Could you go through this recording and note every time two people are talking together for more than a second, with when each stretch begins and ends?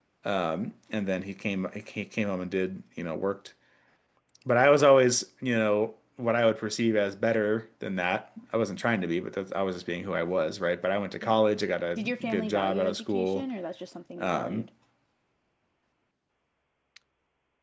12.0-13.4

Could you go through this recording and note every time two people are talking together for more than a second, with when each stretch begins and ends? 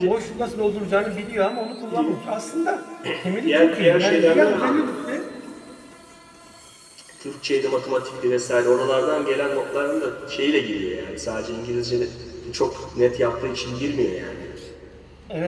3.5-4.8

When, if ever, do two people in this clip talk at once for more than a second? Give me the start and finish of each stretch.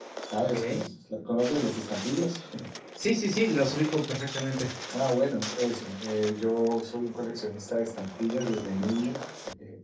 none

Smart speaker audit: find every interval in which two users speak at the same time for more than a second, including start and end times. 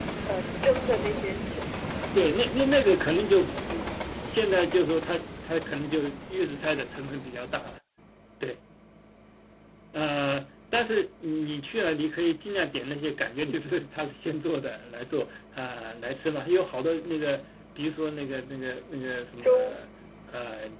none

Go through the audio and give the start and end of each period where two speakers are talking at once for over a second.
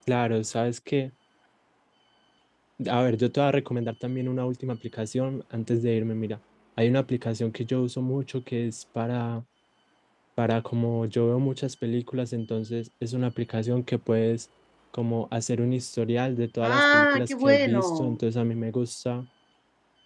16.6-18.2

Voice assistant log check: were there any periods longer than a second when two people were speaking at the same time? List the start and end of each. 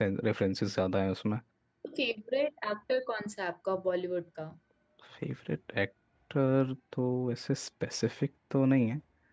none

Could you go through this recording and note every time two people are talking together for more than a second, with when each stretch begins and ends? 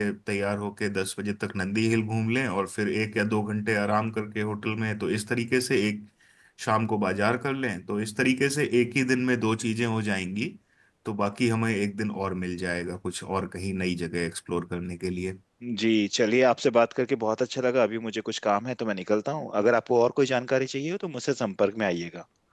none

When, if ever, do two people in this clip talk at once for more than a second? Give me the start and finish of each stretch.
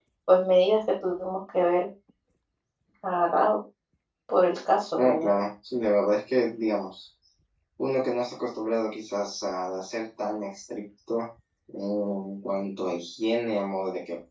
none

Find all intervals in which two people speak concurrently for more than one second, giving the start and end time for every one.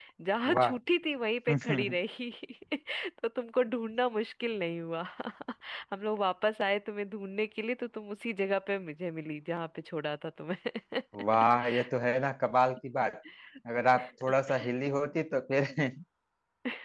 none

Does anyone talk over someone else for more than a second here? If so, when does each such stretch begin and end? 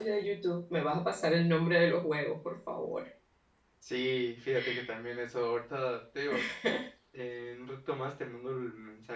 none

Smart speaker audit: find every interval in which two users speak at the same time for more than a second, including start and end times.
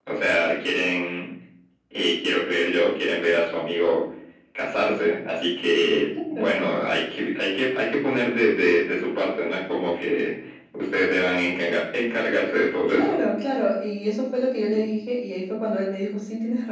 none

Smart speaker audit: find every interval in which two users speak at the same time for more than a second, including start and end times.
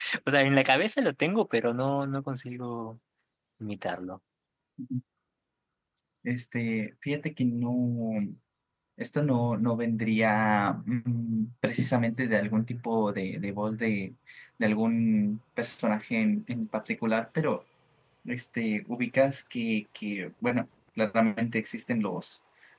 none

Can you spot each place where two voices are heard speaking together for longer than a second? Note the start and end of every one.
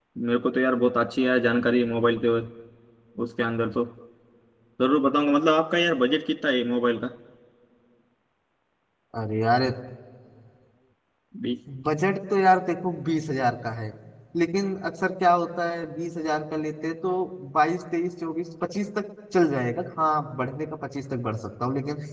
none

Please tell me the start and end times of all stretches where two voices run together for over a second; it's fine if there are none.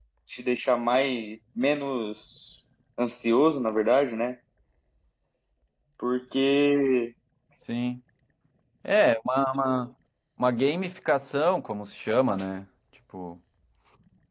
none

